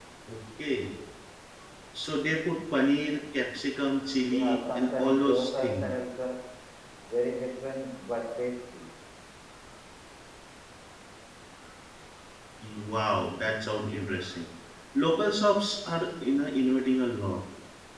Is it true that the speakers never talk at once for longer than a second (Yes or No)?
No